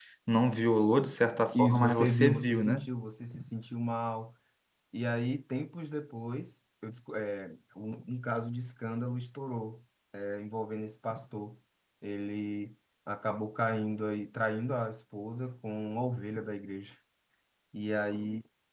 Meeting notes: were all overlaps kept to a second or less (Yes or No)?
No